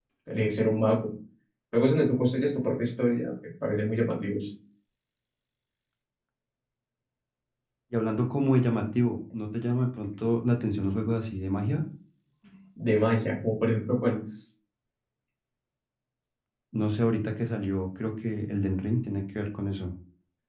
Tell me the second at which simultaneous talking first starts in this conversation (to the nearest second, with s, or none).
none